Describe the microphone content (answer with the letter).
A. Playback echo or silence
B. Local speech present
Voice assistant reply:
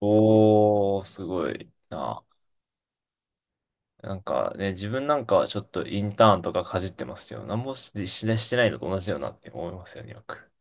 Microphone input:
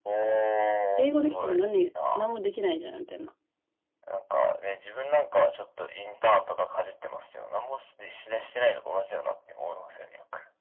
B